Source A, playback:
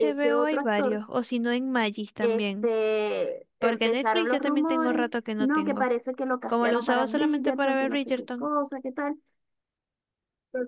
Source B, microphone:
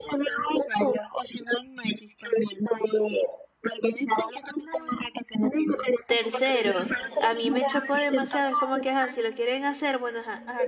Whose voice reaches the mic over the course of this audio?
both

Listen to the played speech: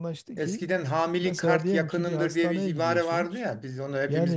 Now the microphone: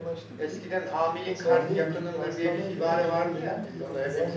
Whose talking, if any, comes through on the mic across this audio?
both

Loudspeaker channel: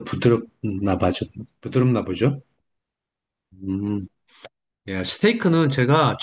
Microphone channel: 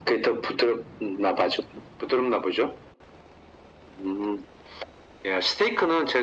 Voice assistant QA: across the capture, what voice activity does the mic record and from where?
echo only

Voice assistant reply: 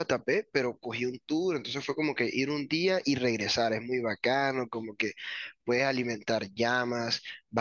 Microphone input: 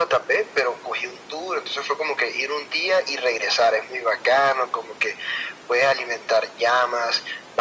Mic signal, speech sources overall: echo only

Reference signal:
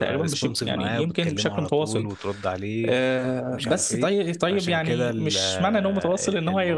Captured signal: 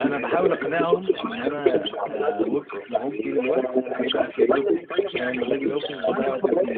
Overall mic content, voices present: both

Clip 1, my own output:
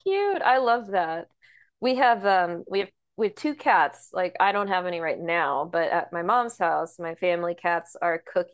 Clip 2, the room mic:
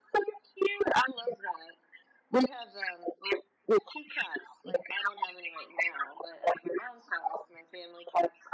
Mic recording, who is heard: echo only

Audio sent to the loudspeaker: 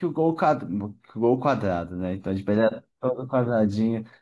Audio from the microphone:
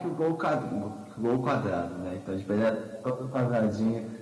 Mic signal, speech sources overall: echo only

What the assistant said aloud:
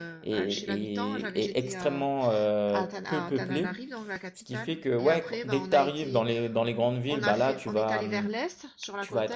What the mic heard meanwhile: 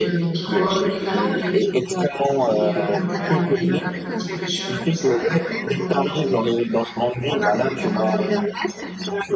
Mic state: both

